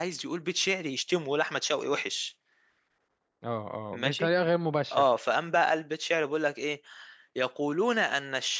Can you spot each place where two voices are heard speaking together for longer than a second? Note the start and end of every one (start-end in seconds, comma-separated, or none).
none